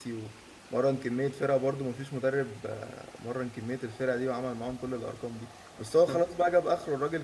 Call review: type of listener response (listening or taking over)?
listening